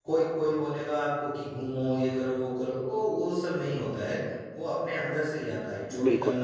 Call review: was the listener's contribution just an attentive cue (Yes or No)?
Yes